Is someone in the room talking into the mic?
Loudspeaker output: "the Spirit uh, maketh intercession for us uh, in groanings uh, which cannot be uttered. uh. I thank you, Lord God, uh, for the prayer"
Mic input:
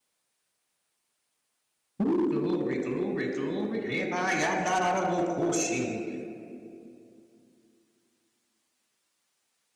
Yes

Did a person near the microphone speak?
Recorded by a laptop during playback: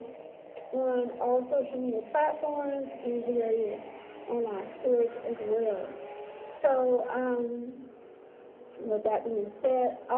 No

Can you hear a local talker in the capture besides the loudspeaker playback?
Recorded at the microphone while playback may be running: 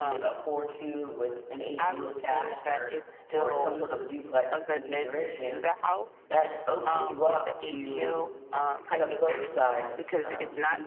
Yes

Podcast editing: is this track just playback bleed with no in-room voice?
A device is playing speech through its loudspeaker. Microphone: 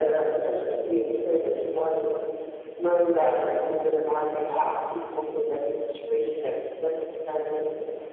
Yes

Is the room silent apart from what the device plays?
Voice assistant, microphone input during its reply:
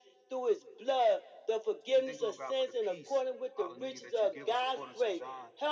No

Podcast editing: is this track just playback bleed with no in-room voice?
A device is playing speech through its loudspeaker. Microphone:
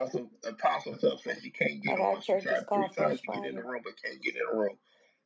No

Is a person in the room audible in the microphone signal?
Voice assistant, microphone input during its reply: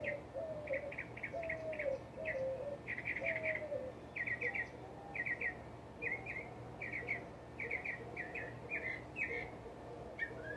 No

